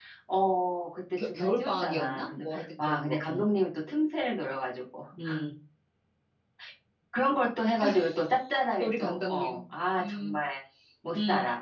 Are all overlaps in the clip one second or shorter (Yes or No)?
No